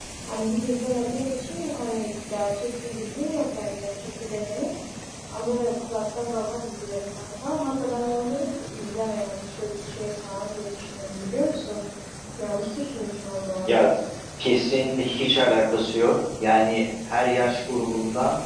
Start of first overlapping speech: none

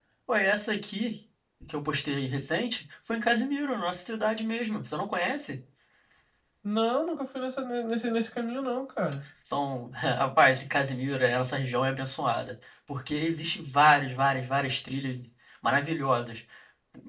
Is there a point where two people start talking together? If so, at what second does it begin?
none

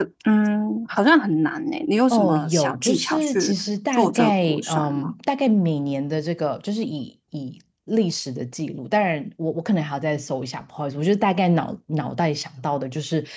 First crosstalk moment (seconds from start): 2 s

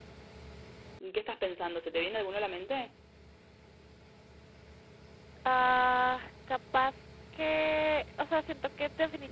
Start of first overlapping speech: none

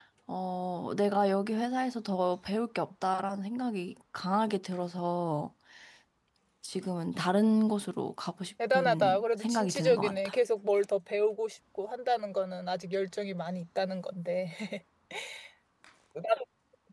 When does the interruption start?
9 s

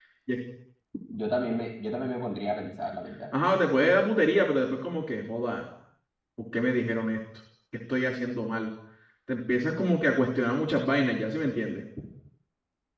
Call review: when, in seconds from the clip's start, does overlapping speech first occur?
none

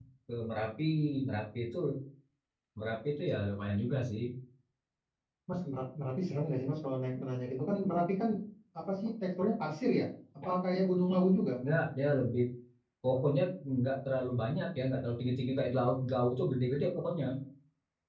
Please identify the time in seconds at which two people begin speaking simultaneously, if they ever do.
none

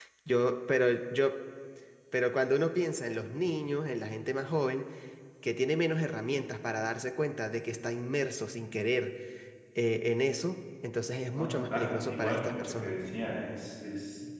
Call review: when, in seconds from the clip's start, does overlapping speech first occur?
11 s

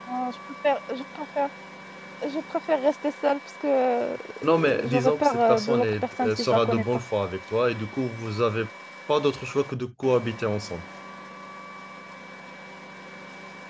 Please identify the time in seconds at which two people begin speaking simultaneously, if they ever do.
4 s

